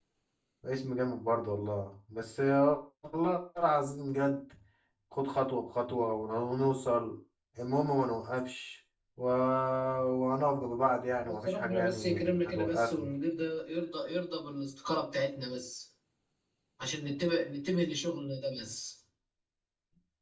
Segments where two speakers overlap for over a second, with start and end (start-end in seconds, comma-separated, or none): 11.2-13.1